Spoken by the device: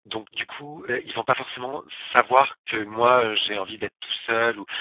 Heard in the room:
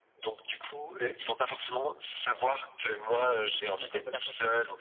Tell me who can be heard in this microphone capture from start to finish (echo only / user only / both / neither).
both